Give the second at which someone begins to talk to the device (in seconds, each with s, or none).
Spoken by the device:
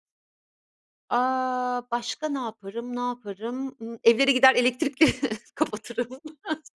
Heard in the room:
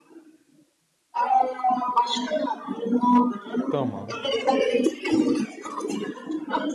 3.7 s